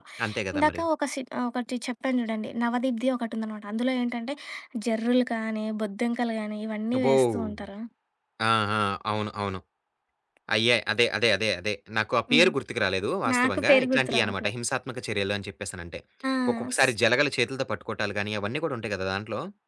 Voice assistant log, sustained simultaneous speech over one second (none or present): present